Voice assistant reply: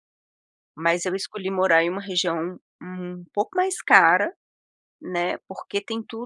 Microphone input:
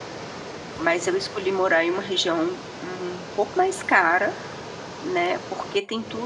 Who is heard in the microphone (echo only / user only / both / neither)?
echo only